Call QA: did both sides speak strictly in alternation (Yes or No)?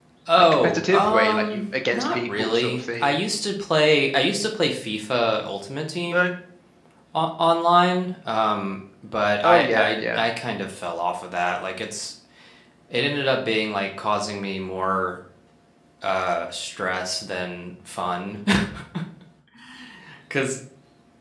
No